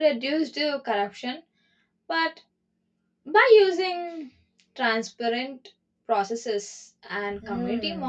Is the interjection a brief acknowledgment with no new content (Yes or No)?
No